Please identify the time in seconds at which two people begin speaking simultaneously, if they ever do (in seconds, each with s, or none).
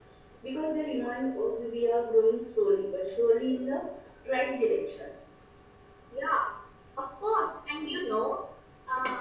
none